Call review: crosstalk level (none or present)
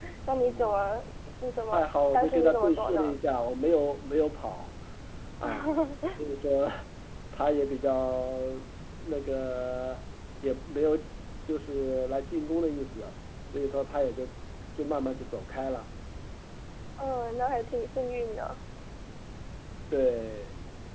present